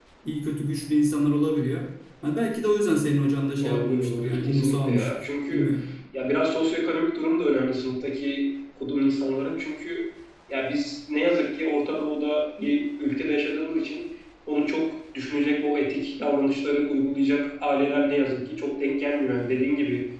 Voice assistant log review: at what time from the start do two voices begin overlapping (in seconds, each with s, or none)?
3.6 s